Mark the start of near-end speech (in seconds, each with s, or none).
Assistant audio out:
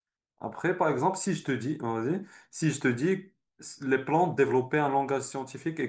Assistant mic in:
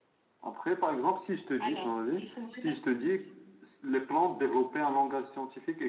1.6 s